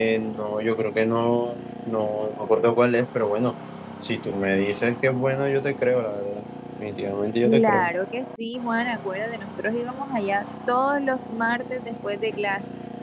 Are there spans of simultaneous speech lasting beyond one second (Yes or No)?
No